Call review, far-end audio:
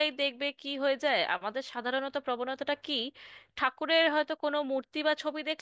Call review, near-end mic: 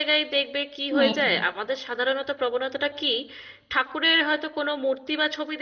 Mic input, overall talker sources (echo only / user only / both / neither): both